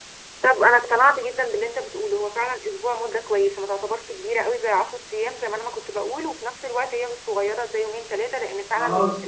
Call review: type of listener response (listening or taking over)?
taking over